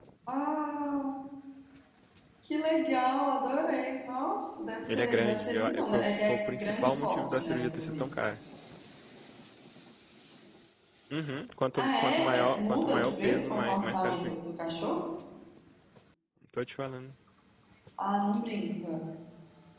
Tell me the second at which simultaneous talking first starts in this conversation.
4.9 s

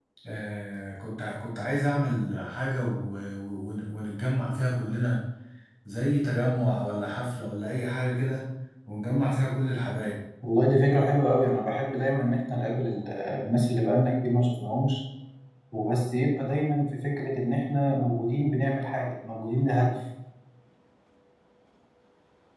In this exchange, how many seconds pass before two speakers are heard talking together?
none

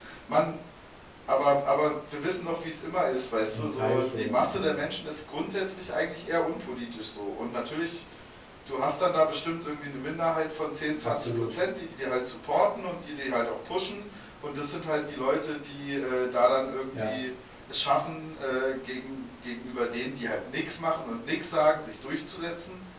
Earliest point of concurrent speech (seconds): 3.5 s

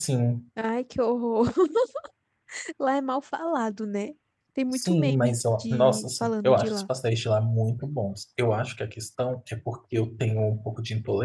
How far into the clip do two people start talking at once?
4.7 s

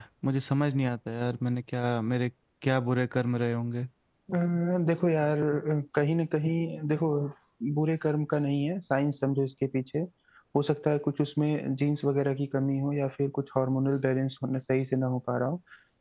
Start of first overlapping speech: none

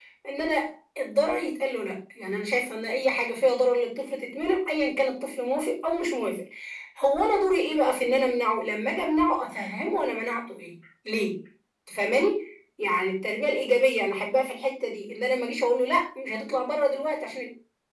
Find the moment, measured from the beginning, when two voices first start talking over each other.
none

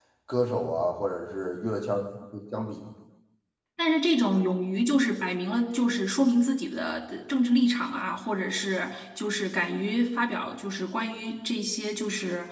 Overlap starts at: none

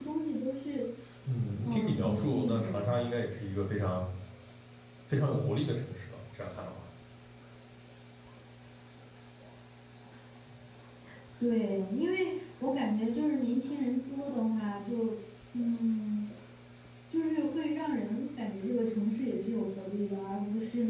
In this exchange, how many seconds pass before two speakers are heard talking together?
1.6 s

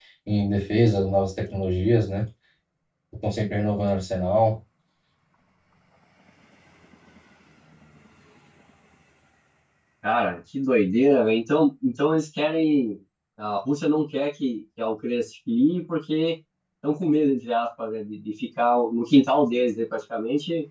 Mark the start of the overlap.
none

